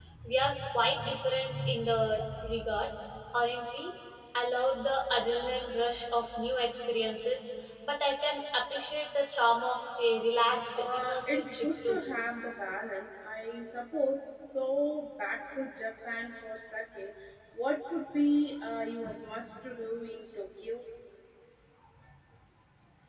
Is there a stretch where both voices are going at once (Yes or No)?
Yes